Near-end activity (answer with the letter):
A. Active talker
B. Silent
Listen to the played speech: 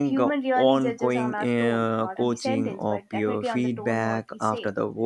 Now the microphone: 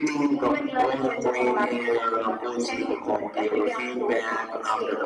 B